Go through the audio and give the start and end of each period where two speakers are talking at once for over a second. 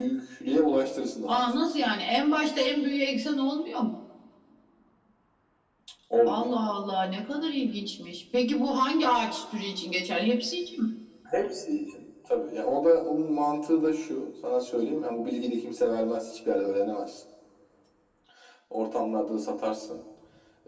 none

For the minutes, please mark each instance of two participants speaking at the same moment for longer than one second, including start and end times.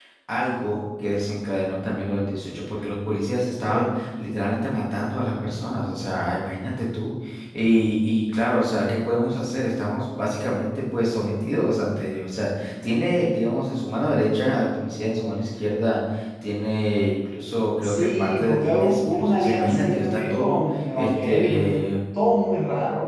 17.8-21.8

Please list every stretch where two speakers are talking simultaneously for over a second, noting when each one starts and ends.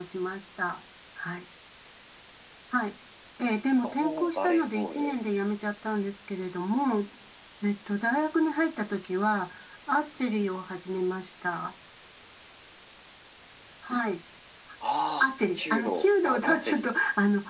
3.8-5.2, 15.2-16.9

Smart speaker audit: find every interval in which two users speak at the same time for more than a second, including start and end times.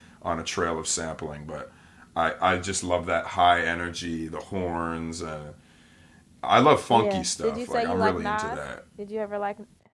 6.9-8.6

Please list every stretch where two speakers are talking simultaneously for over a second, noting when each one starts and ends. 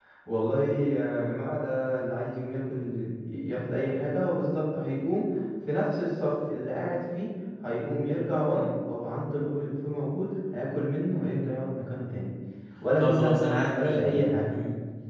13.0-14.6

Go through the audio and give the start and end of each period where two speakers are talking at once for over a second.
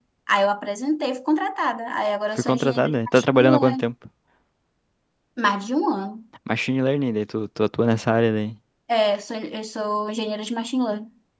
2.4-3.8

